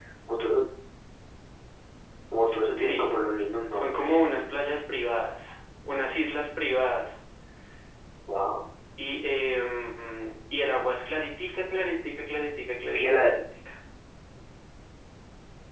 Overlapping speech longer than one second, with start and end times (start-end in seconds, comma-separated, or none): none